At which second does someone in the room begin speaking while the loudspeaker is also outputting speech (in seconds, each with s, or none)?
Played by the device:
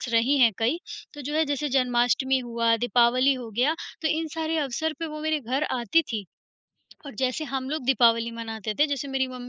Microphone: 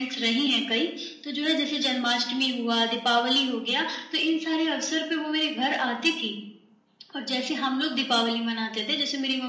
none